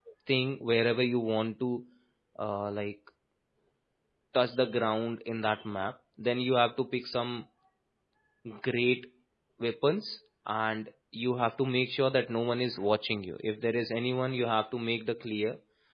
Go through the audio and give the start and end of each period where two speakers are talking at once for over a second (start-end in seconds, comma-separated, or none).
none